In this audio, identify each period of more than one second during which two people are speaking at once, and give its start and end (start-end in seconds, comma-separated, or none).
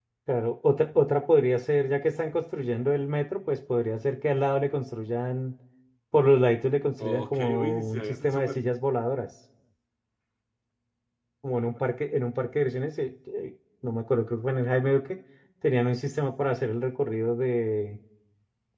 7.0-8.6